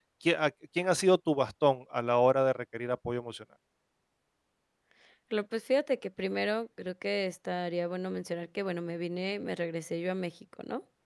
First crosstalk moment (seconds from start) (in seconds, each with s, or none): none